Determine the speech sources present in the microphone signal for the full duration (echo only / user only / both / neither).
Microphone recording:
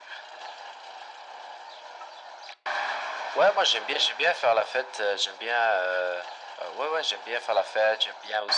echo only